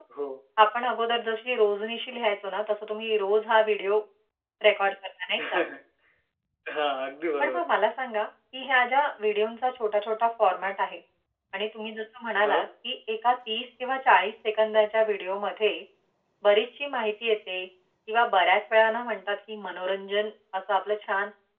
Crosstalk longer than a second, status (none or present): none